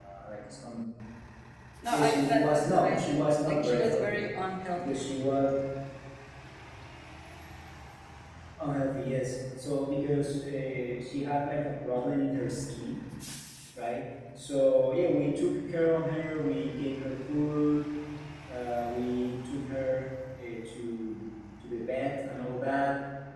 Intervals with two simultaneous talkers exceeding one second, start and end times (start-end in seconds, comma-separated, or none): 1.9-4.2